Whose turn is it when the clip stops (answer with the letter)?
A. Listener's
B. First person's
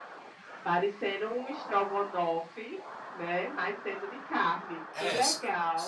A